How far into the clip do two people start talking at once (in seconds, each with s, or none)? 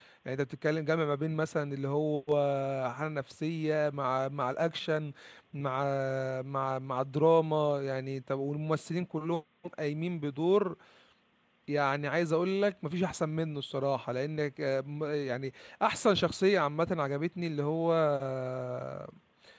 none